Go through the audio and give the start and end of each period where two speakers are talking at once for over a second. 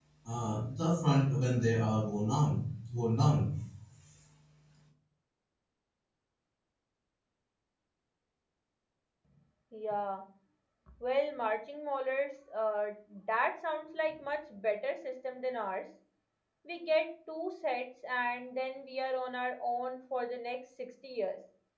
none

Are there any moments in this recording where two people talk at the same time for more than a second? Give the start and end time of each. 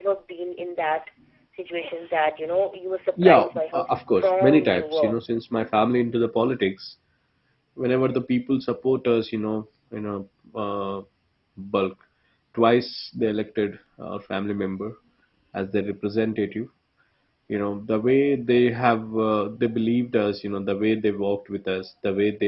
3.2-5.2

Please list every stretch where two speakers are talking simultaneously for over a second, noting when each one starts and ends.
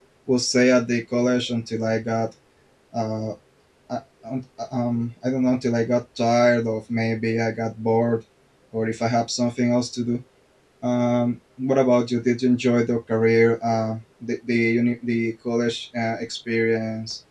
none

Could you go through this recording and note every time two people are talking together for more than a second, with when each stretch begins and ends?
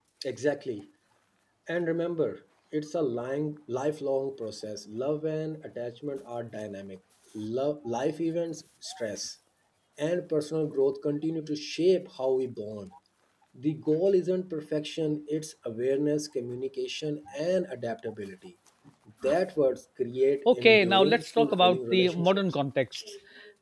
20.4-22.4

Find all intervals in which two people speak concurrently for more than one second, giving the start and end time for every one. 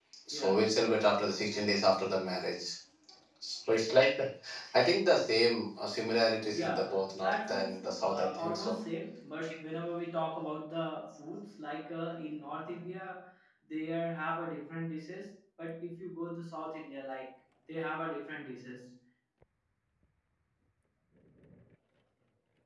6.5-8.8

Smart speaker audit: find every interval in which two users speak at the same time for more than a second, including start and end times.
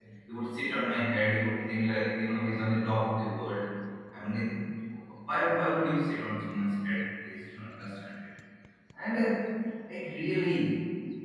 none

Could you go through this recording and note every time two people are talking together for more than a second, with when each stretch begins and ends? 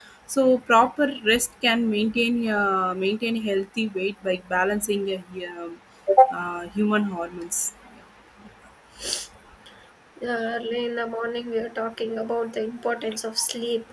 none

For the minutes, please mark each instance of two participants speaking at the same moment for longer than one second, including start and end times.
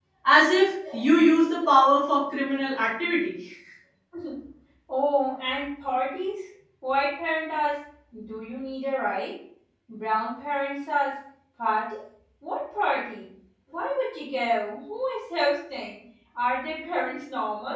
none

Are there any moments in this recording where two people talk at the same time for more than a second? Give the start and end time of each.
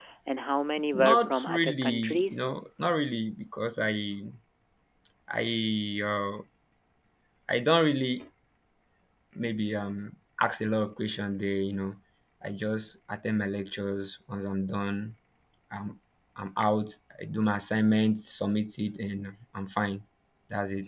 0.9-2.4

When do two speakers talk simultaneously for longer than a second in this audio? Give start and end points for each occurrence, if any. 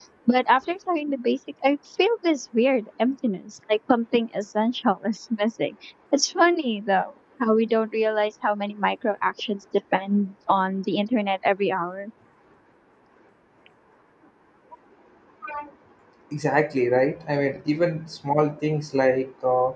none

